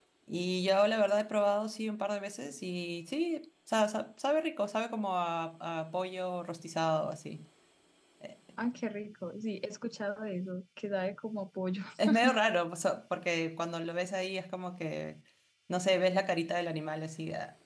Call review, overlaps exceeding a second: none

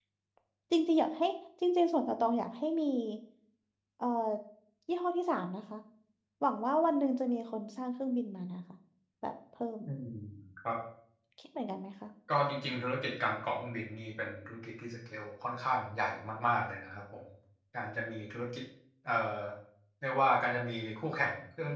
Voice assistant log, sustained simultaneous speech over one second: none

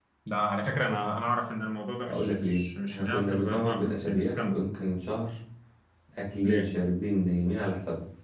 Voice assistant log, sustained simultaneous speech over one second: present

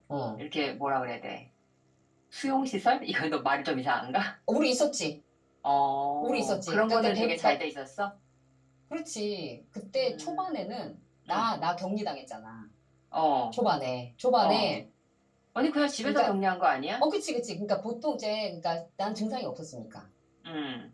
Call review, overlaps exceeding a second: present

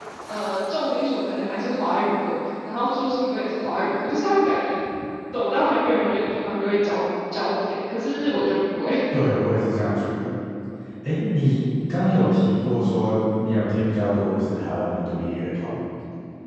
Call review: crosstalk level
none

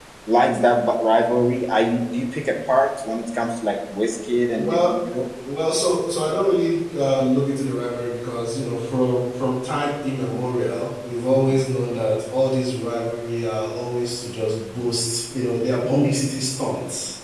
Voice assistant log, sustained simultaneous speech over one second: none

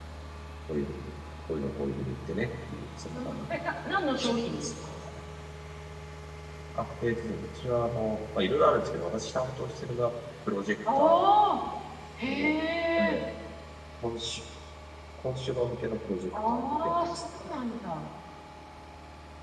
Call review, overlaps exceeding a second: present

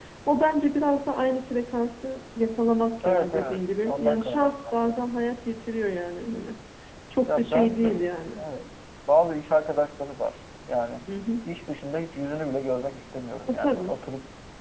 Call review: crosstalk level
present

